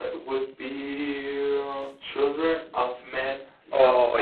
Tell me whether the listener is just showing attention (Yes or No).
No